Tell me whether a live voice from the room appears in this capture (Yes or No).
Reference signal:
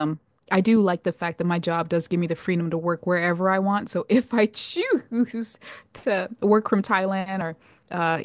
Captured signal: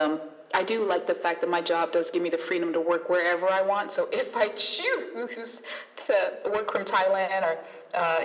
No